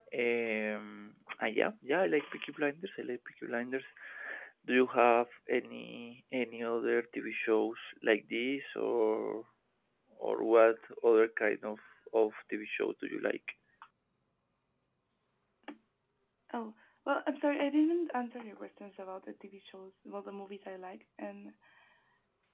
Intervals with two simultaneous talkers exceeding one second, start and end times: none

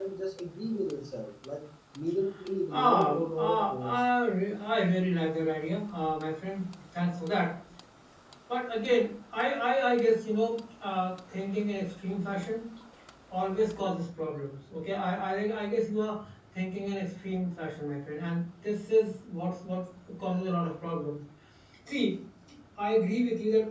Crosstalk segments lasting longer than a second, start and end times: 2.7-4.0

